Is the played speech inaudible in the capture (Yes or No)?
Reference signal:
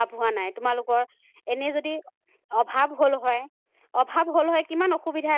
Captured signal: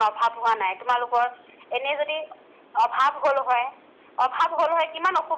No